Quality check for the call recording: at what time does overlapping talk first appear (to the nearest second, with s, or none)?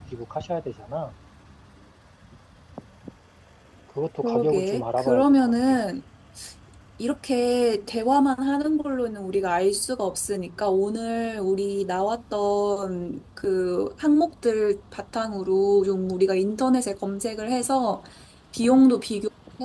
4 s